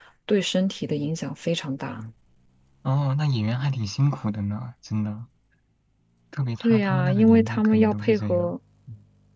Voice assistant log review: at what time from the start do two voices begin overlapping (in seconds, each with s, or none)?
6.6 s